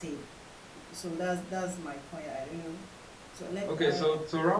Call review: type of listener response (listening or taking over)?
taking over